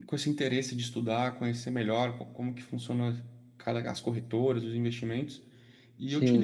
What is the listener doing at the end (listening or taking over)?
listening